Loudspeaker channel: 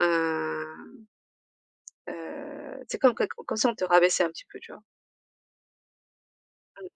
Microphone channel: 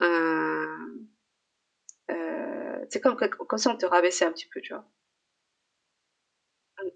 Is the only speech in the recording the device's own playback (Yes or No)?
Yes